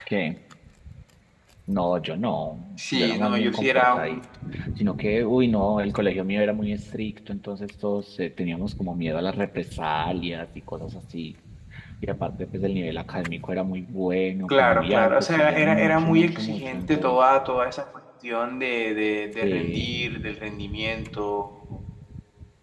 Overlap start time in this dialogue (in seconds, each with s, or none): 2.8 s